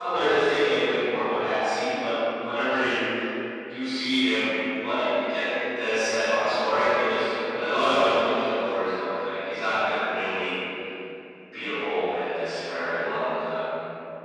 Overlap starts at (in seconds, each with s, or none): none